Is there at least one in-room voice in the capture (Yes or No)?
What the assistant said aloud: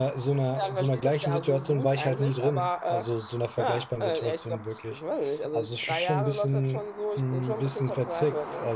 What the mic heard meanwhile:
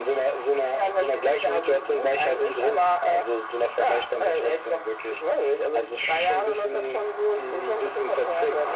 No